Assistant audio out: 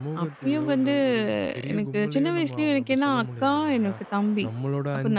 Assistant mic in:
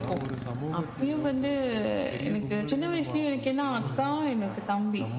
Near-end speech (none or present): present